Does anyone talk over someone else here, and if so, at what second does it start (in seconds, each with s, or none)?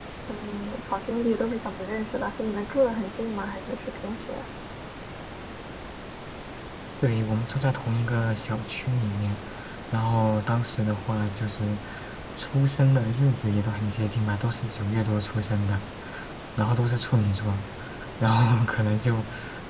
none